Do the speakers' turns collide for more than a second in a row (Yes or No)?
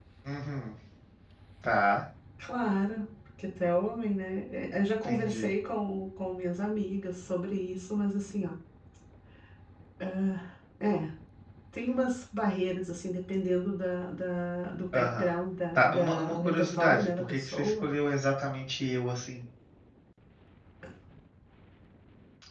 Yes